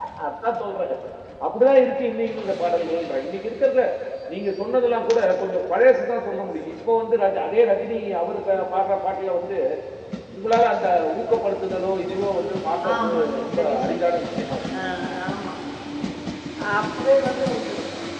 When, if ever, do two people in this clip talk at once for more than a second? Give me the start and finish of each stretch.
12.9-14.2

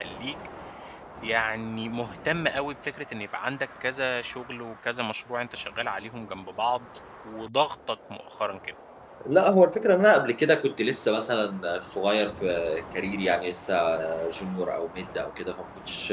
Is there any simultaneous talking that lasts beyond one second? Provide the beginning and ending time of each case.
none

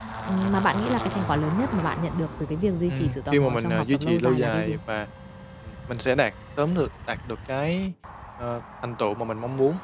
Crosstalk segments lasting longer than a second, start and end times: 2.9-4.8

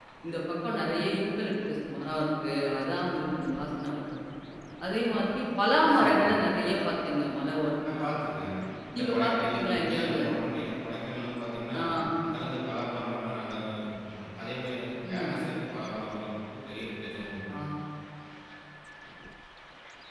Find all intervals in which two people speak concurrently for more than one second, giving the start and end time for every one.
9.0-10.2

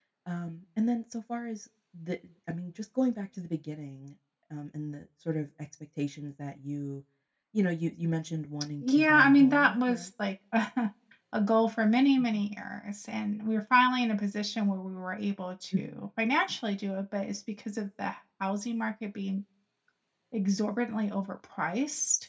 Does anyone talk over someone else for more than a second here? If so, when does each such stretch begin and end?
8.8-10.1

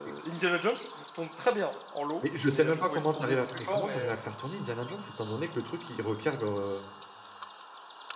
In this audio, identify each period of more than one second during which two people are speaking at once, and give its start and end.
2.2-4.1

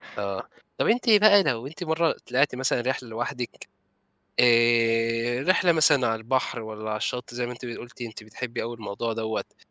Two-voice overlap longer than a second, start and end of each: none

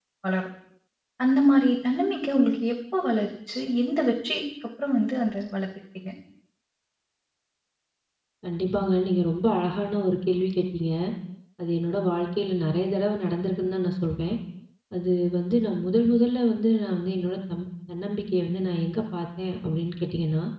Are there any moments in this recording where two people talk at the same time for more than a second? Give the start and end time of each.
none

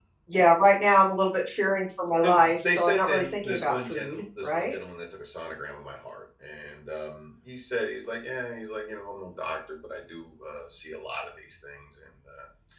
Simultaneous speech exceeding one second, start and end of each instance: 2.2-4.8

